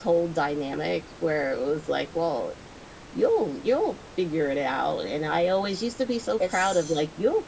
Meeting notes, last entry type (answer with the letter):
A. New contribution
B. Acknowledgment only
B